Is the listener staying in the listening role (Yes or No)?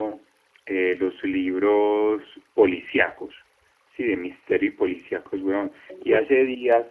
Yes